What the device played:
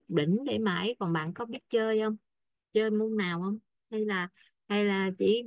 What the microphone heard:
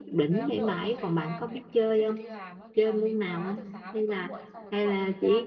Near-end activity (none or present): present